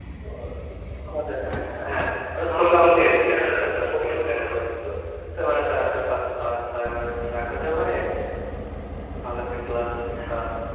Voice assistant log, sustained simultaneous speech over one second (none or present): present